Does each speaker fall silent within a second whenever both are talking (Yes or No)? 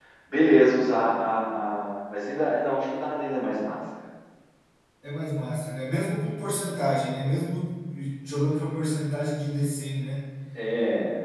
Yes